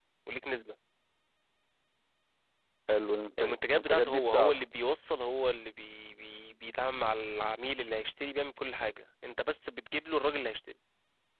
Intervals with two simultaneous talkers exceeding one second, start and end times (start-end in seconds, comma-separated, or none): 3.4-4.6